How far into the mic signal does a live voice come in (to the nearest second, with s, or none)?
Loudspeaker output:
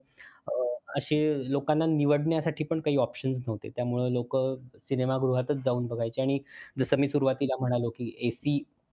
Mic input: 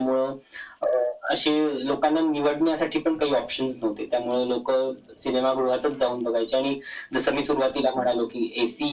none